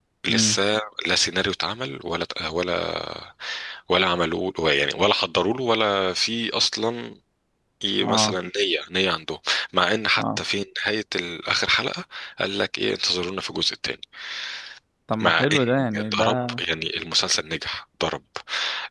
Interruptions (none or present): present